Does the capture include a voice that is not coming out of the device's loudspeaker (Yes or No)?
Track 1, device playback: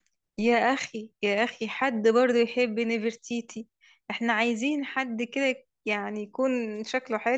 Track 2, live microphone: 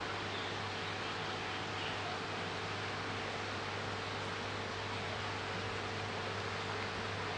No